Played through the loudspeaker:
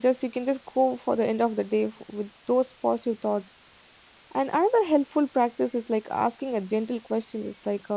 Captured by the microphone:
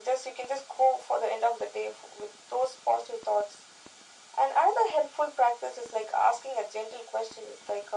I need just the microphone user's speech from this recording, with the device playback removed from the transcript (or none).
none